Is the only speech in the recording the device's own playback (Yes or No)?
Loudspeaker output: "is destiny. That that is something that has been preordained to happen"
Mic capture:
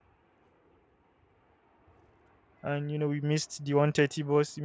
No